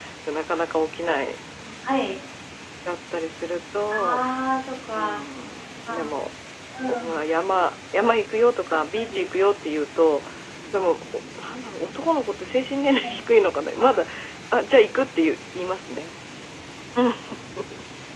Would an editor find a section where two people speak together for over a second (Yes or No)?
No